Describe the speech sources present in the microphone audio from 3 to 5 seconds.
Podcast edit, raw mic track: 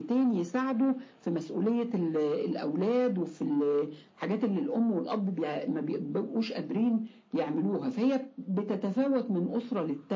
echo only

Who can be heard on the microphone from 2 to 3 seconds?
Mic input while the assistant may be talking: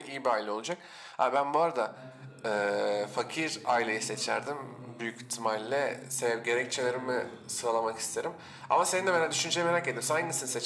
both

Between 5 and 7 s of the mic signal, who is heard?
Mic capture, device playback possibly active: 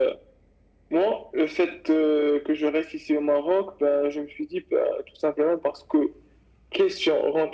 echo only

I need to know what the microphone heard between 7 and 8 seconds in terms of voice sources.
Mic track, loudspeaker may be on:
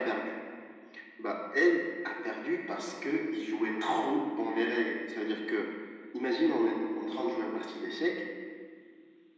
echo only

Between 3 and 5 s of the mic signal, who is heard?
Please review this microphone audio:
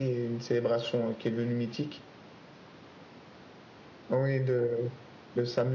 user only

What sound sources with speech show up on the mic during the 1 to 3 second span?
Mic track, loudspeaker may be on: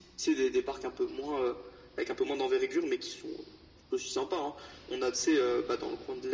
echo only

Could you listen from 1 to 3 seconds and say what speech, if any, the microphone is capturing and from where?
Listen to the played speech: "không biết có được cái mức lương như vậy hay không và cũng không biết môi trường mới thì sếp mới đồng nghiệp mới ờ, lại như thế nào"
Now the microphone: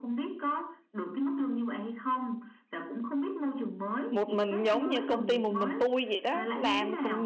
echo only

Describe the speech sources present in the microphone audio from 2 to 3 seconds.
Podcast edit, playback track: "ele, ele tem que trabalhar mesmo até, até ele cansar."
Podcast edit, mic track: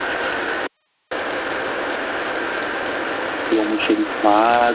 neither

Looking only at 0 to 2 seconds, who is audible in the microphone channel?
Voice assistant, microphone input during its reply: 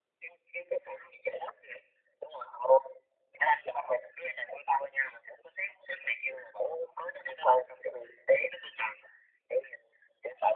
echo only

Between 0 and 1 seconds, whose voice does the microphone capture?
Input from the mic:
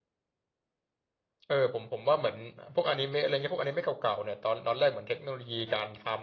neither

